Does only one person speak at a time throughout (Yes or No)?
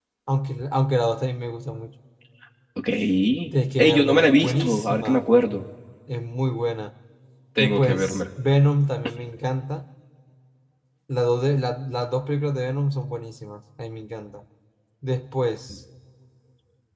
No